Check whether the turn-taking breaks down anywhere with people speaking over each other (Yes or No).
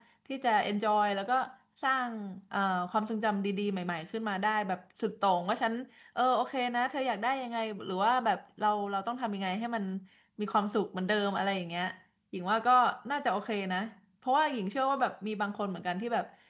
No